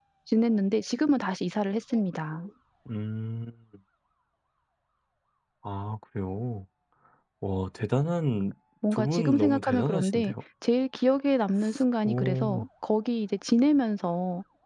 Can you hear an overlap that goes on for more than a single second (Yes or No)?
Yes